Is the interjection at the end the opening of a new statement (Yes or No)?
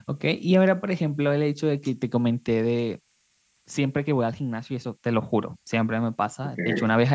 No